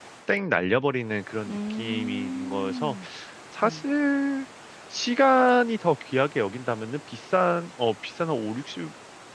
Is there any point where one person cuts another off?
Yes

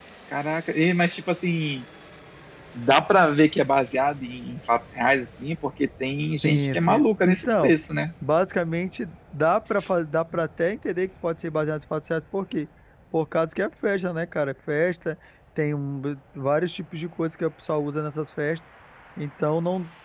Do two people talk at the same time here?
Yes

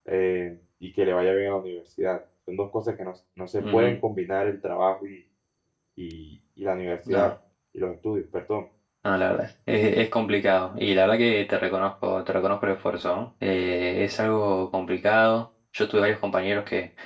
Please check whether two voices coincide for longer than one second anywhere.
No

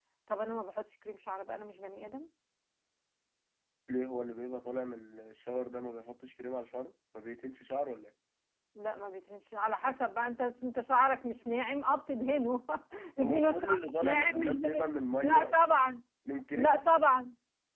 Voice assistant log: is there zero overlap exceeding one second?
No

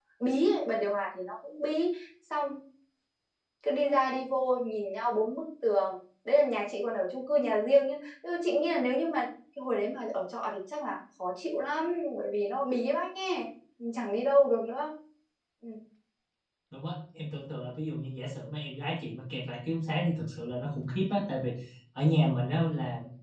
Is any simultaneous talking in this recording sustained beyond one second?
No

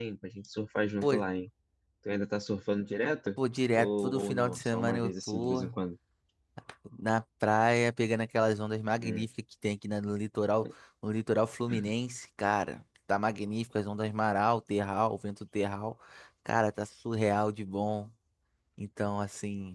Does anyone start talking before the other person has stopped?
Yes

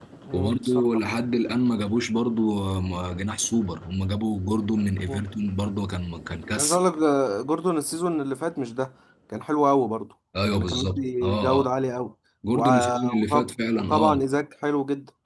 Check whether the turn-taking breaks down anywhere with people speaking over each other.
Yes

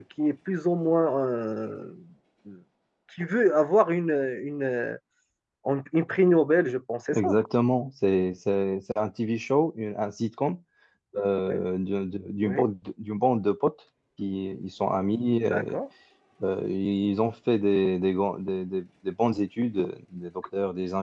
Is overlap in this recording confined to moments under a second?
Yes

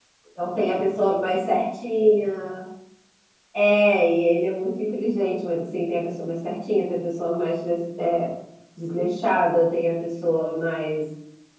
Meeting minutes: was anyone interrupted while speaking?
No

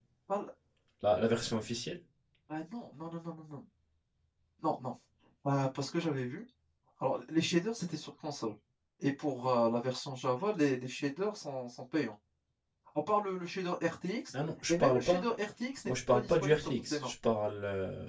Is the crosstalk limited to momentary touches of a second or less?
No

